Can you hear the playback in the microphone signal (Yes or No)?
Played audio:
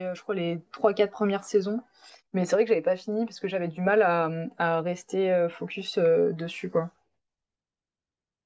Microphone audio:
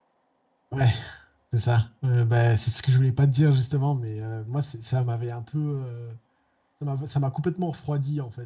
No